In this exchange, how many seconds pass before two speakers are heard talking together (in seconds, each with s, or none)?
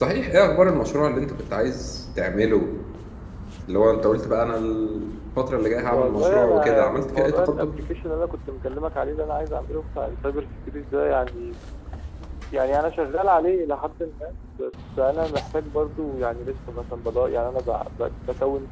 5.9 s